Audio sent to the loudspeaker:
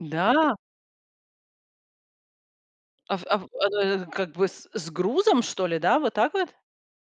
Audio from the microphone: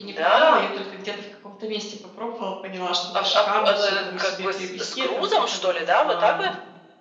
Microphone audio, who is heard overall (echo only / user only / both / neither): both